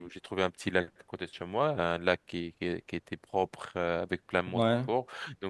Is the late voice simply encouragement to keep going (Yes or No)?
Yes